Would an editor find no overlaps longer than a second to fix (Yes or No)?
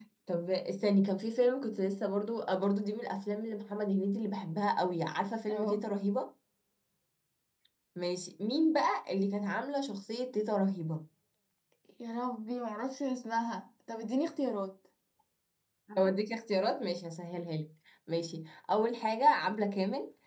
Yes